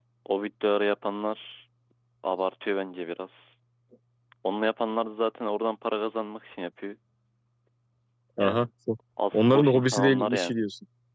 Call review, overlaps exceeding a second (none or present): present